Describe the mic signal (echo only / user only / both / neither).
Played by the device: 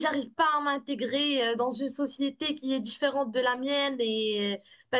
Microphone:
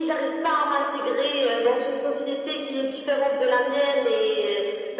echo only